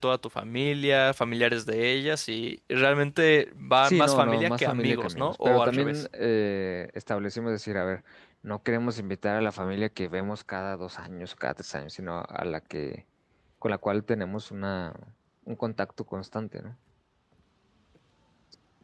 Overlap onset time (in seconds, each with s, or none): 3.8 s